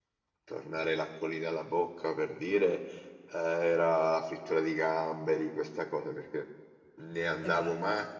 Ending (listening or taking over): listening